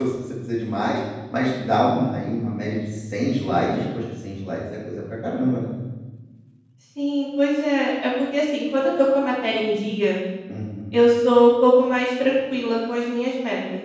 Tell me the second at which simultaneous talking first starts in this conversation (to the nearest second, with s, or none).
none